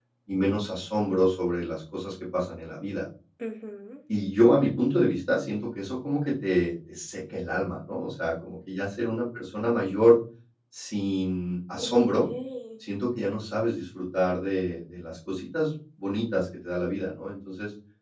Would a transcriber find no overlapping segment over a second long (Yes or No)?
Yes